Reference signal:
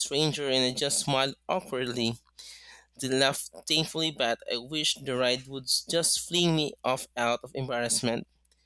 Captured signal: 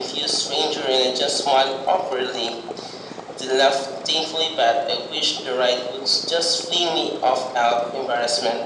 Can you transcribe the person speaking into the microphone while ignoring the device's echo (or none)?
none